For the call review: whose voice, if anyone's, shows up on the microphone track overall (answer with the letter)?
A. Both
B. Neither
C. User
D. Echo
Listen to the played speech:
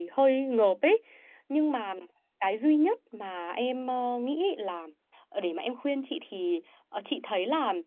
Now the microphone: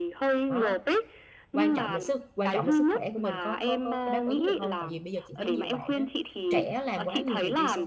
A